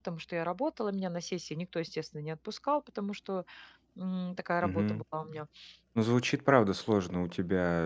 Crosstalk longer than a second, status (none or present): none